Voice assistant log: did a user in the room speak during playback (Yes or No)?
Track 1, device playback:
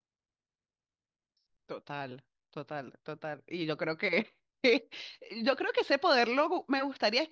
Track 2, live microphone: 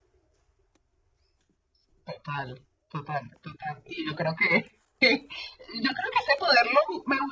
No